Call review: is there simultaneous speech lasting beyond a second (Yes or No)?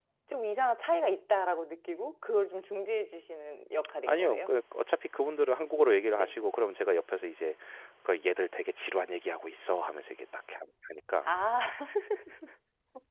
No